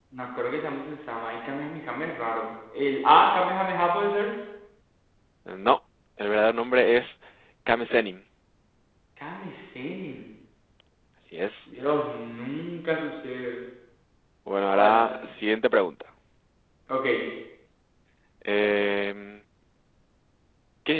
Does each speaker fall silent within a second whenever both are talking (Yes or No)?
Yes